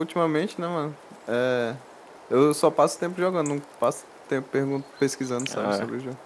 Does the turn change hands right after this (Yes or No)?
Yes